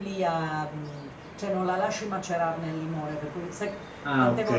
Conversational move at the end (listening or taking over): listening